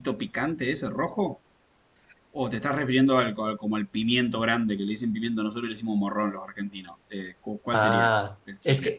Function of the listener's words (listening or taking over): taking over